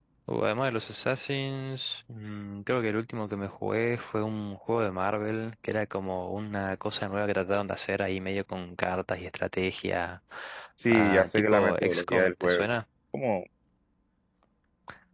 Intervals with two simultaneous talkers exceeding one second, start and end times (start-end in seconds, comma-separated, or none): 10.9-12.7